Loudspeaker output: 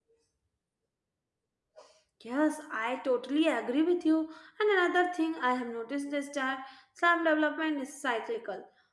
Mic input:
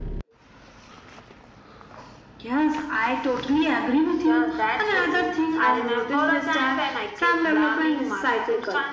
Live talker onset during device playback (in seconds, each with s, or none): 4.2 s